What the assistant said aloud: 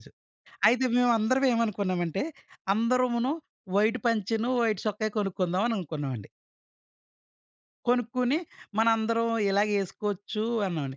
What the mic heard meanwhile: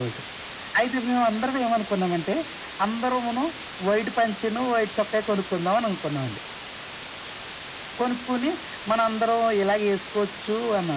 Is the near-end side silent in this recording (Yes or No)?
Yes